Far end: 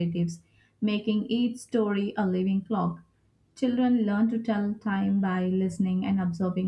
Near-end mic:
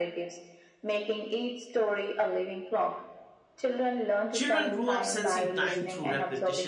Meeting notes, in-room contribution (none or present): present